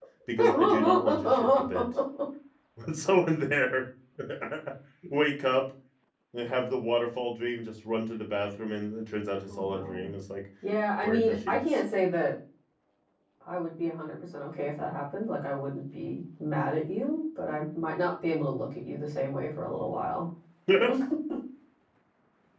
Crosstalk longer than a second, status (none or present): present